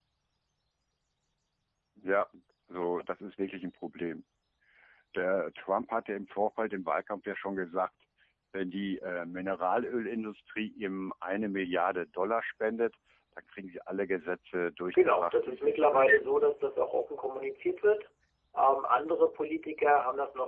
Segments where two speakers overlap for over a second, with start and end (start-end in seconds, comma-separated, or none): 14.9-16.3